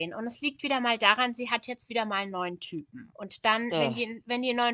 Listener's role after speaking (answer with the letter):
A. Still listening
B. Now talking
A